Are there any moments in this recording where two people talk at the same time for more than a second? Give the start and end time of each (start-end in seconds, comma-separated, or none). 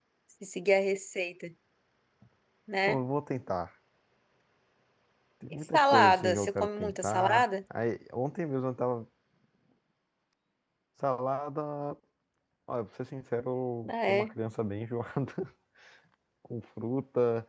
5.7-7.5